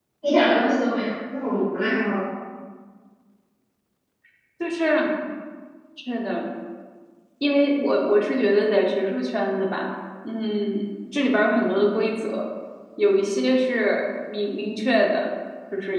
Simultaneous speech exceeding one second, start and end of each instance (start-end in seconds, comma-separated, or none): none